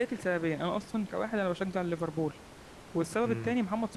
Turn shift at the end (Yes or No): No